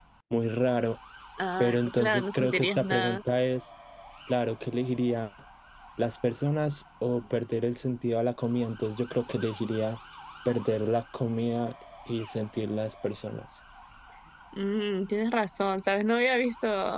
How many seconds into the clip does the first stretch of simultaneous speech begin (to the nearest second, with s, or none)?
2 s